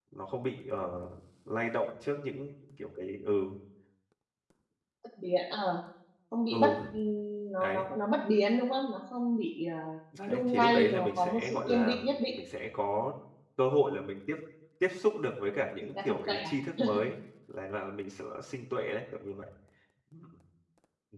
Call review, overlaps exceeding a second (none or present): present